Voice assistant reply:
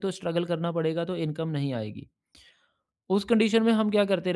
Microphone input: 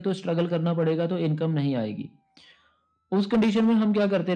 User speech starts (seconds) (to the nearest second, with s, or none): none